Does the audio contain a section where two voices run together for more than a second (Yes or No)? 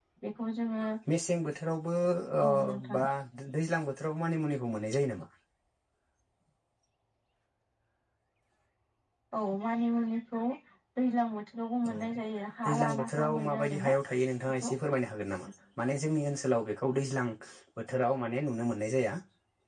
Yes